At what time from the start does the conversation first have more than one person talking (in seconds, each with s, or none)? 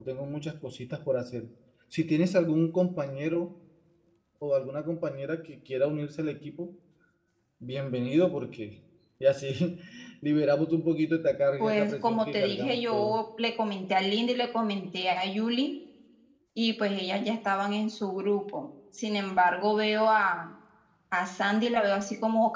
11.6 s